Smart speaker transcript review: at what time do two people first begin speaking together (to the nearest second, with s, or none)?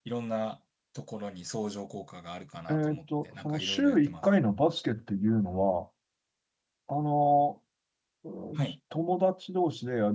3 s